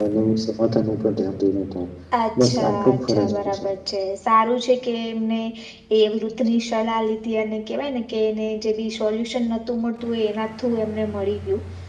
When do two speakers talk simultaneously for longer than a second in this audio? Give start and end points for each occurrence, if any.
2.4-3.6

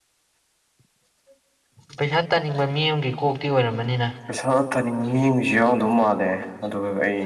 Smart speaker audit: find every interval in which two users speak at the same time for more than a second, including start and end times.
none

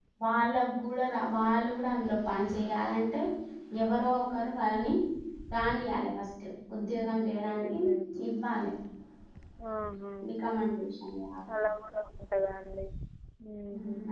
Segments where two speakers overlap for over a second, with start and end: none

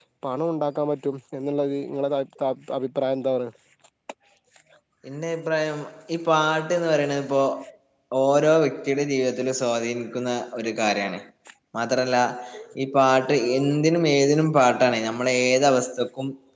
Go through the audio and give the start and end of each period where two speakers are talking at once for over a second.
none

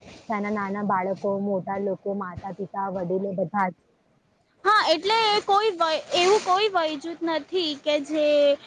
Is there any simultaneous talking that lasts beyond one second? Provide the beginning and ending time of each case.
none

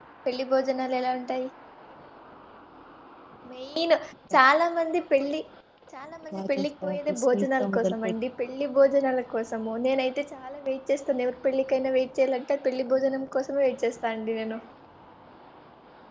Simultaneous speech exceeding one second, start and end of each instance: 6.3-8.1

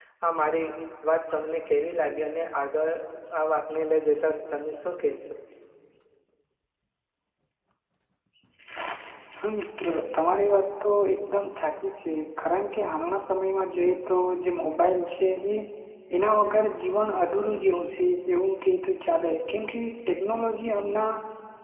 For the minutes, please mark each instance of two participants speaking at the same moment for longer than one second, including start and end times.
none

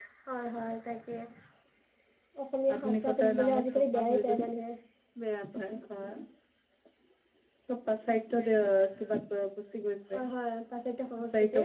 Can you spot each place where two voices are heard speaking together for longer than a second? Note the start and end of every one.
2.7-4.5

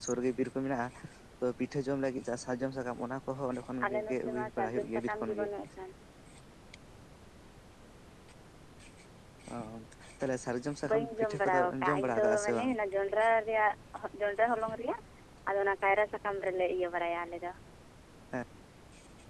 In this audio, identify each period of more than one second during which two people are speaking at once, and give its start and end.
3.8-5.5, 10.9-12.7

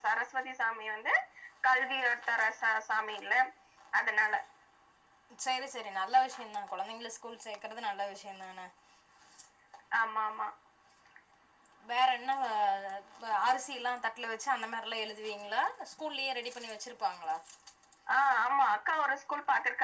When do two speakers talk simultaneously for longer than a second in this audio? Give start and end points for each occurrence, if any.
none

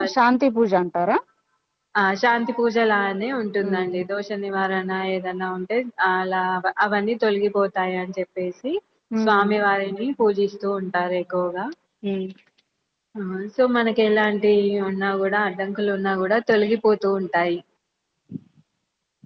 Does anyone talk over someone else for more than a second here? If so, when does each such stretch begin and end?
none

